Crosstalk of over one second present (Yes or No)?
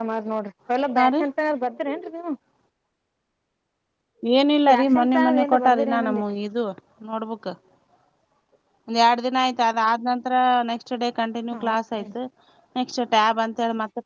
Yes